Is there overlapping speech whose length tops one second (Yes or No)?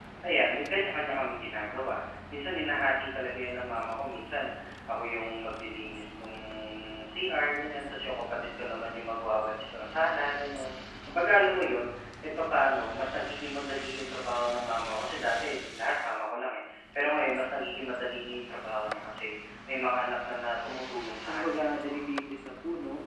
No